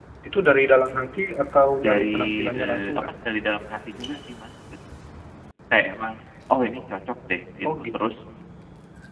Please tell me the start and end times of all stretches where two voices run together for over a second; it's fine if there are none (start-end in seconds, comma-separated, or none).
1.8-3.0